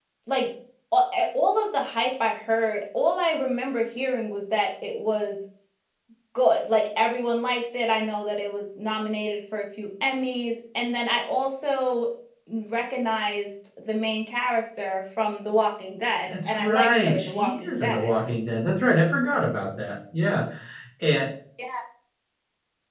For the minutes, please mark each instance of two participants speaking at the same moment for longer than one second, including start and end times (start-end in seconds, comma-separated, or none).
16.3-18.2